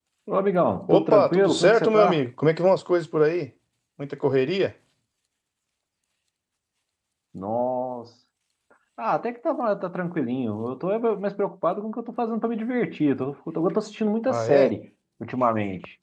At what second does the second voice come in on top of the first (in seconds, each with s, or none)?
0.9 s